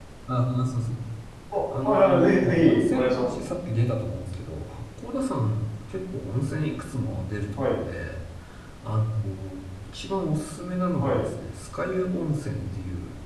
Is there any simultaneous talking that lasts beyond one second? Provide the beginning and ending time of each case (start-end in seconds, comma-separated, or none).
1.8-3.4